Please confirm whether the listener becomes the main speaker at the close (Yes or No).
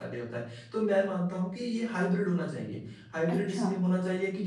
No